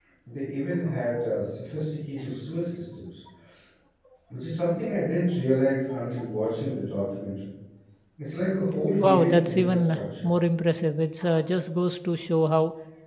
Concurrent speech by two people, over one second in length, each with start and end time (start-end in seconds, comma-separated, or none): 9.0-10.3